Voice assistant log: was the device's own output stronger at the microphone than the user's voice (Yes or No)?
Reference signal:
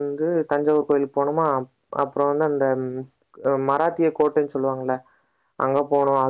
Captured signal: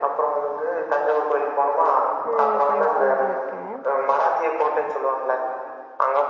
Yes